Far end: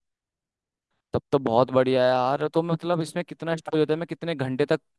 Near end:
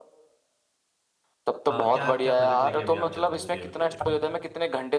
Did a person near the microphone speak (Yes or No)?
Yes